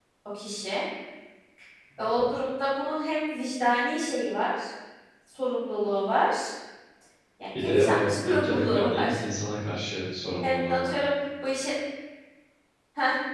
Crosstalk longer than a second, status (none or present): present